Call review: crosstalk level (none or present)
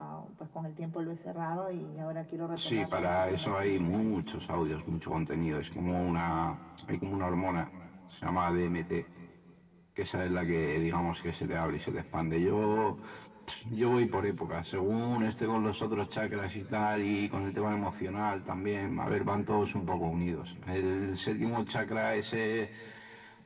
present